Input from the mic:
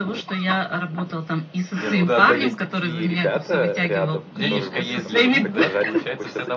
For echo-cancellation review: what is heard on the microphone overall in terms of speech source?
both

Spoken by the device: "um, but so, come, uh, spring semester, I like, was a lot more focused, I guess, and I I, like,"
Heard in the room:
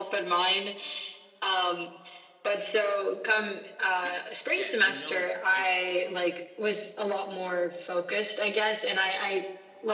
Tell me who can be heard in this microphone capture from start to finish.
both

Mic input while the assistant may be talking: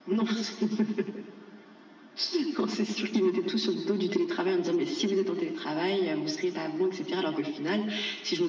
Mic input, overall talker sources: echo only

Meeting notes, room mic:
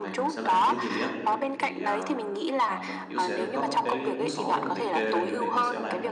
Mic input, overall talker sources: both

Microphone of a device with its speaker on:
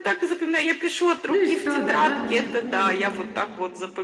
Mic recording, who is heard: both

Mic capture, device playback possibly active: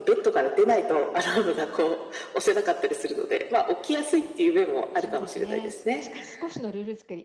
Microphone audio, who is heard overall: both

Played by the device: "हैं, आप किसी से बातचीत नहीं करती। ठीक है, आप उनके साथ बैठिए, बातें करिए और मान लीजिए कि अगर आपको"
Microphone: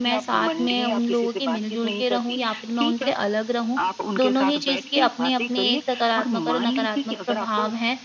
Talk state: both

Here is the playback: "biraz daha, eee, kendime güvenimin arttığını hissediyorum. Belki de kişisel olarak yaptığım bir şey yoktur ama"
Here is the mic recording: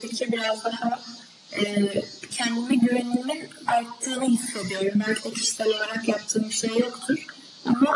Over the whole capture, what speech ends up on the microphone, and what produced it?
echo only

